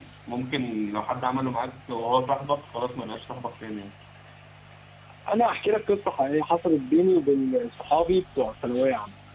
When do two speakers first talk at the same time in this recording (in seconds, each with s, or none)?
none